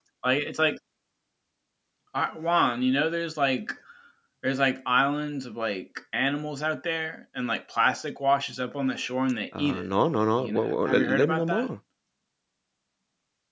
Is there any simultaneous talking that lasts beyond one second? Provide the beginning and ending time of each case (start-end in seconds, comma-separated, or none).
10.4-11.7